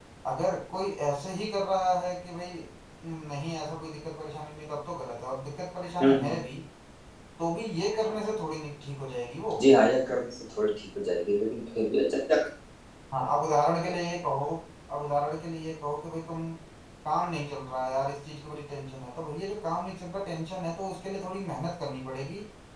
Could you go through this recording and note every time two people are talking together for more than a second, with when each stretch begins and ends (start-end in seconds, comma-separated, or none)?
none